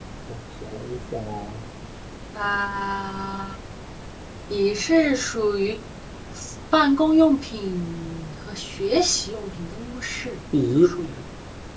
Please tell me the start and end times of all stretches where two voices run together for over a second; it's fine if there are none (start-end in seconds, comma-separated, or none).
none